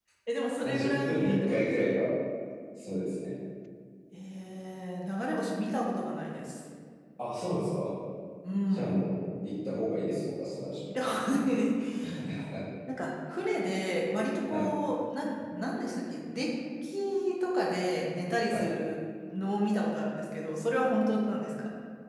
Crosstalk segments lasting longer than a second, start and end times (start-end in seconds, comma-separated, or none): 0.6-2.0